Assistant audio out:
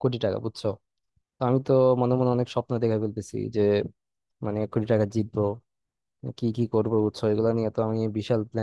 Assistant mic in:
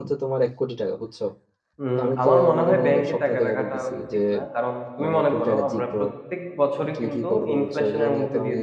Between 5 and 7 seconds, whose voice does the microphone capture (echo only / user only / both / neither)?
both